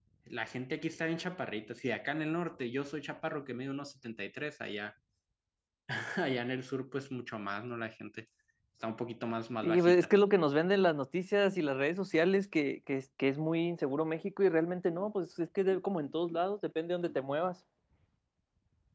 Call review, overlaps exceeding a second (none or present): none